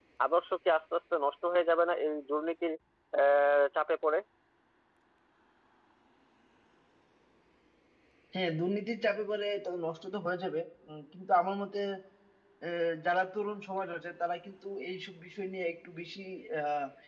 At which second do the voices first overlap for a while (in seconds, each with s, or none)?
none